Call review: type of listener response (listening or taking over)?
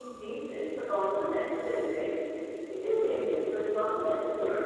listening